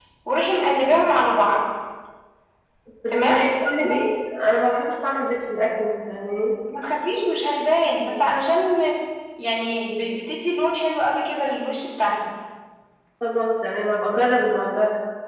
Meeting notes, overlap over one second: none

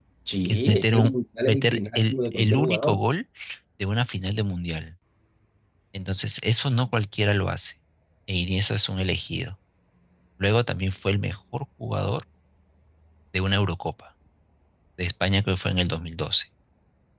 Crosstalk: present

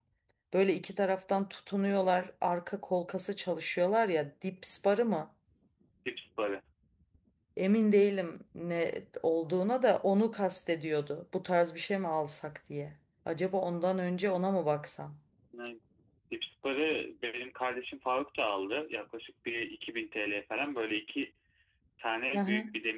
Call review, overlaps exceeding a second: none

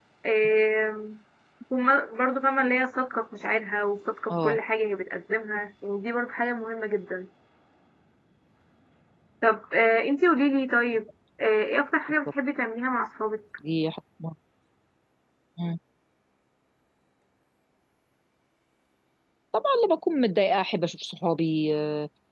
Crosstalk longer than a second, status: none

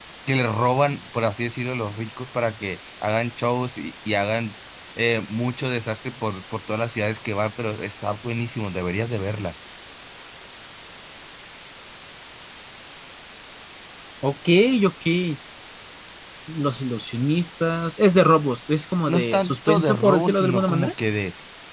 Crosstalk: present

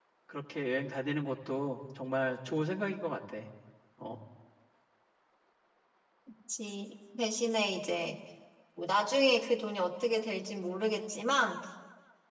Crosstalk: none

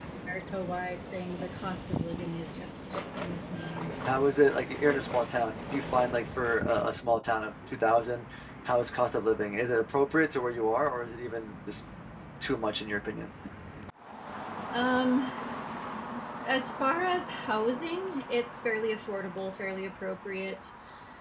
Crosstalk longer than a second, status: none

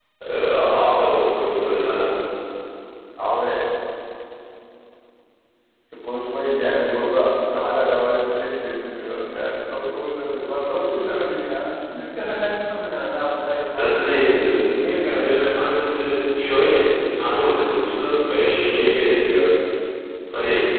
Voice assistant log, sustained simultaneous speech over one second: present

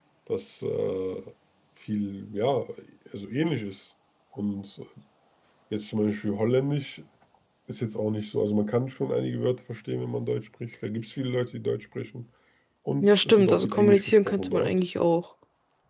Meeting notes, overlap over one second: present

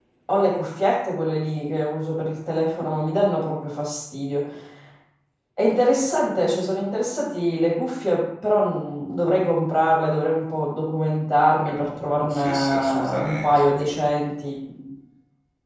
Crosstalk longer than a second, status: present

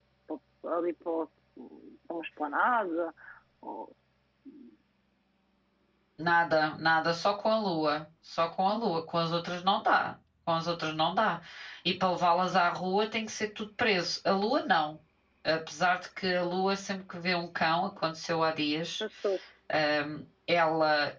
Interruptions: none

